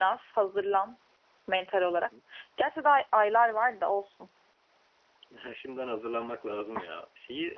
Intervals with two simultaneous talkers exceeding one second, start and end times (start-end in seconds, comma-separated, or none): none